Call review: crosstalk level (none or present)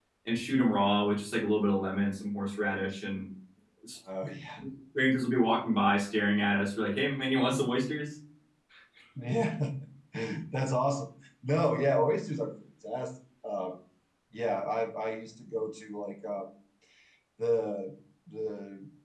none